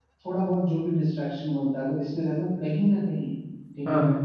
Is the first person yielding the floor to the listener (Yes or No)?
No